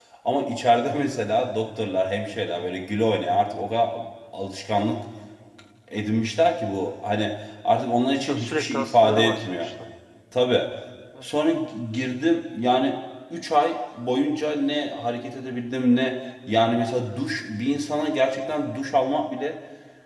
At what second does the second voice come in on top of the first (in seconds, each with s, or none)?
8.3 s